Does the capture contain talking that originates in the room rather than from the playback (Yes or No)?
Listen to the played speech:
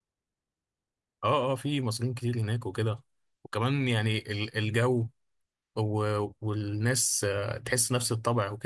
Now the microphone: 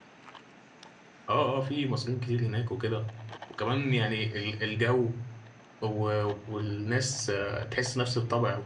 No